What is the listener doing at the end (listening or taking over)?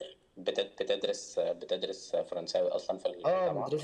taking over